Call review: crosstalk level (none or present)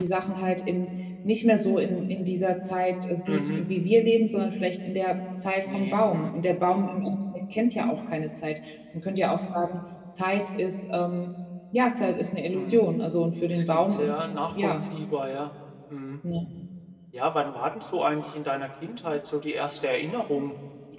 present